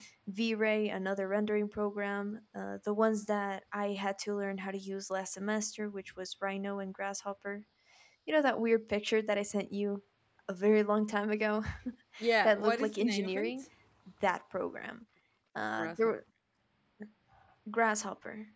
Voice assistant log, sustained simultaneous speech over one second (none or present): present